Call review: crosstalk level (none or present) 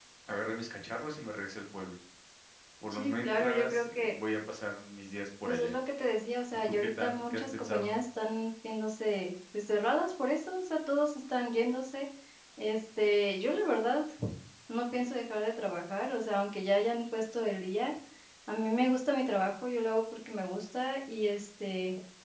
present